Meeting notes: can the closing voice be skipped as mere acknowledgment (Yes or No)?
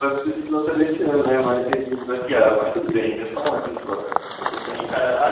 No